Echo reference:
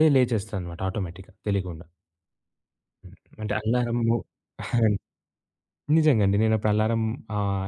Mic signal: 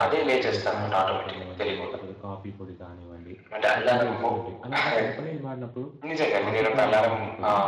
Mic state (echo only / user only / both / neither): both